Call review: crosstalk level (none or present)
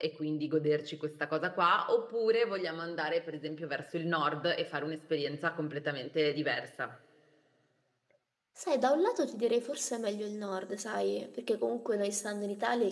none